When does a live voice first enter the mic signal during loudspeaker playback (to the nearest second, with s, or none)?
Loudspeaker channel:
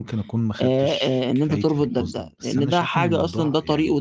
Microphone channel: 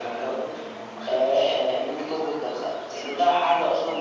none